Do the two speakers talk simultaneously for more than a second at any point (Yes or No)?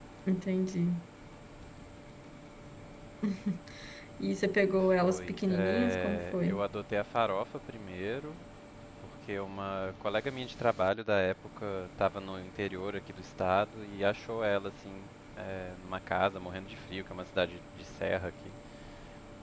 Yes